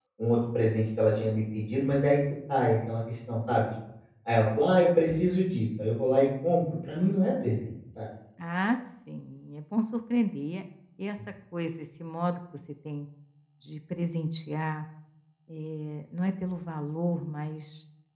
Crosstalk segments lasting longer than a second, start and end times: none

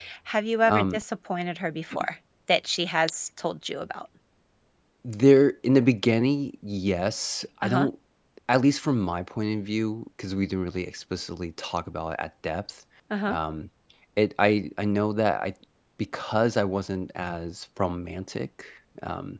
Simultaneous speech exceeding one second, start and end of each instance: none

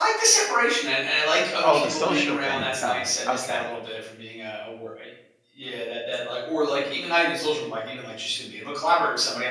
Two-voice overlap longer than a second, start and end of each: 1.6-3.6

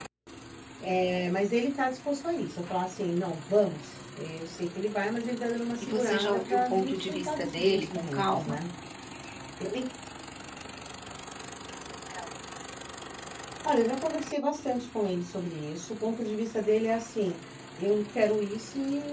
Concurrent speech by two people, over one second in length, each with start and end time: 5.8-8.6

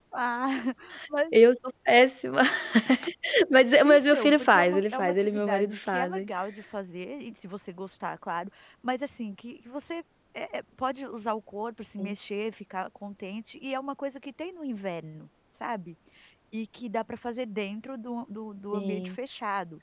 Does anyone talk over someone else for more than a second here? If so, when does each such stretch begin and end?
3.9-6.3

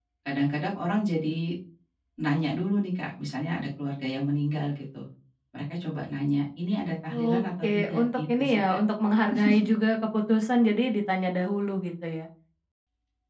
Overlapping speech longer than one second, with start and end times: 7.1-8.8

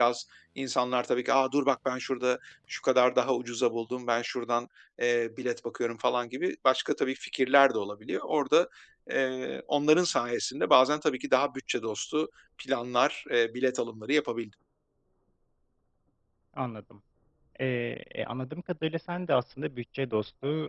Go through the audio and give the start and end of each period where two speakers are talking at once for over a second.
none

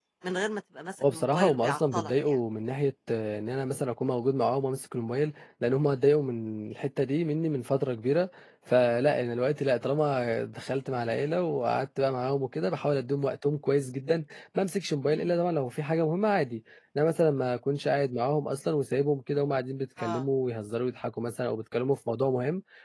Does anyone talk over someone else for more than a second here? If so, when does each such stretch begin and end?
1.0-2.4

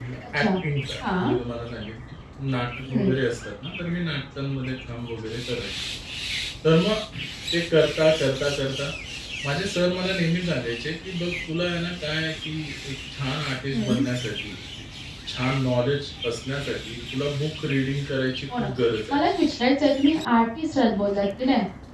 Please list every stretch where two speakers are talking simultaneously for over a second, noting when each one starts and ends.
none

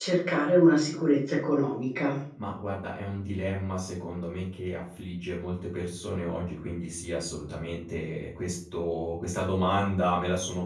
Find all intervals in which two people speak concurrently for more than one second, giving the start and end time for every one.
none

